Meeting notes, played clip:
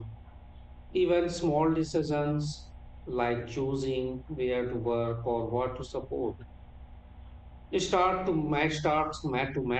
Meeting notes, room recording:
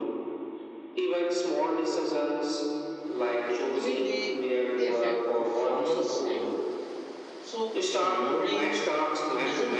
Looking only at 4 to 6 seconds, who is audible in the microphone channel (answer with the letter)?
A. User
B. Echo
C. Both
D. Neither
C